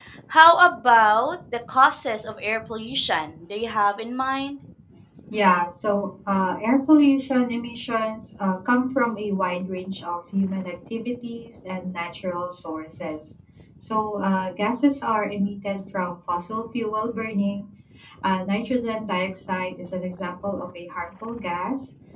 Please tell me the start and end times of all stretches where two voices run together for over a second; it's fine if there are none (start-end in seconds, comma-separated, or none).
none